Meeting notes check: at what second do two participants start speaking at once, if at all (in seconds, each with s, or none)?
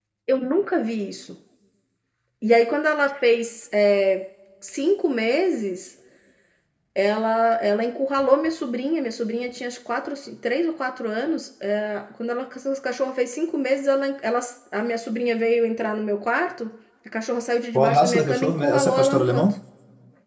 17.7 s